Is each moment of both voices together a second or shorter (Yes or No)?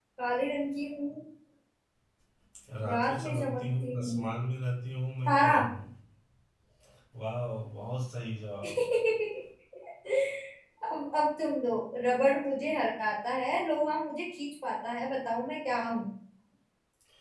No